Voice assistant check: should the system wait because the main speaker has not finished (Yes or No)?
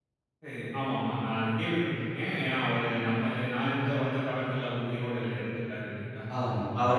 No